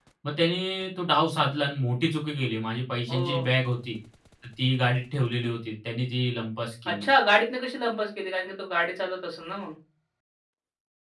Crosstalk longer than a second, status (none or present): none